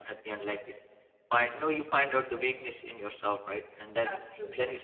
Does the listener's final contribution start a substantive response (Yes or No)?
No